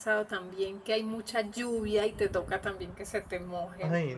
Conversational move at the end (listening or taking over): taking over